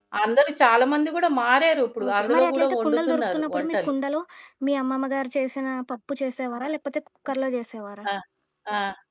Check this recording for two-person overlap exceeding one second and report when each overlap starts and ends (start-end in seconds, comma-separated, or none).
2.1-3.9